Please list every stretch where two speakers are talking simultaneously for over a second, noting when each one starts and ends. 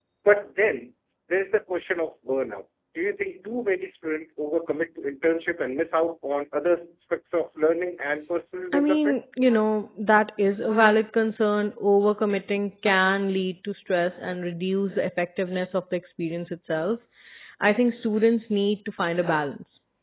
none

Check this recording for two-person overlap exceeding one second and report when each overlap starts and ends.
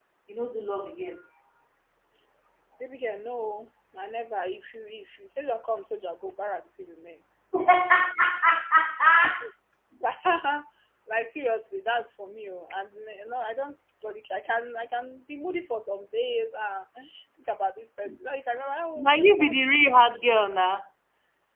none

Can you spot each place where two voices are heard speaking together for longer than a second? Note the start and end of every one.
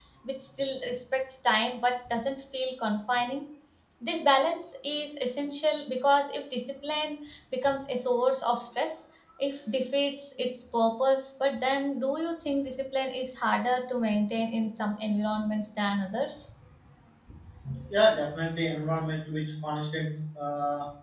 none

